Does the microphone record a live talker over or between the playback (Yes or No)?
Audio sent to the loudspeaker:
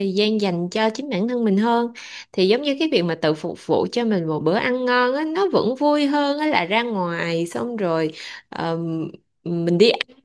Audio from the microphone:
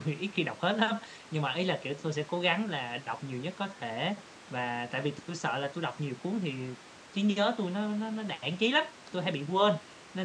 Yes